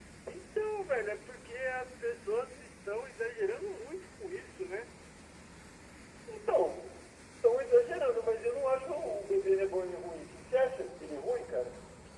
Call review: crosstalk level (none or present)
none